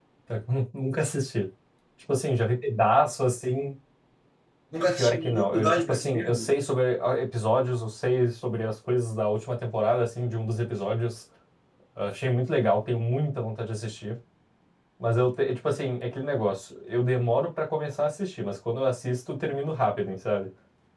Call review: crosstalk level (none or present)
present